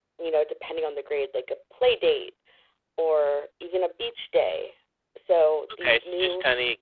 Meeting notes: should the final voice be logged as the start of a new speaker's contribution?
Yes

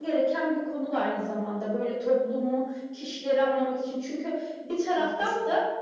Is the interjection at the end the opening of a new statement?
No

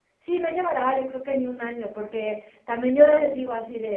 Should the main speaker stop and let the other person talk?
No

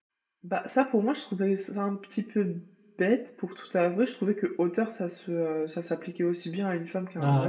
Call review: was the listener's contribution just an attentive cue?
No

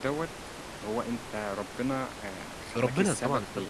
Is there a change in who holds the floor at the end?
Yes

